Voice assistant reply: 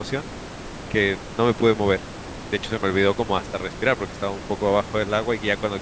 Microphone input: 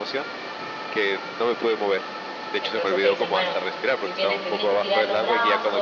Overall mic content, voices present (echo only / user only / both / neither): both